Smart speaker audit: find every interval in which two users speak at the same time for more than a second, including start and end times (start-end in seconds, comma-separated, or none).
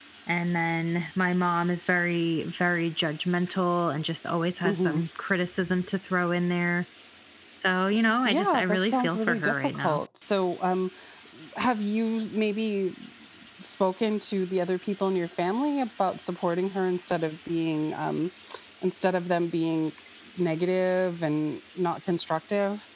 8.2-10.0